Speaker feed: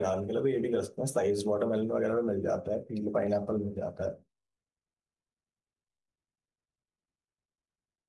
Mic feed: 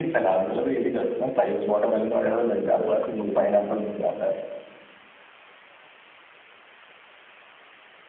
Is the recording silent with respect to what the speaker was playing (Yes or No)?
No